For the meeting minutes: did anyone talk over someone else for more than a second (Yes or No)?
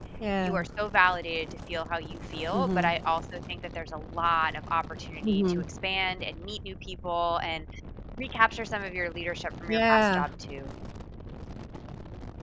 No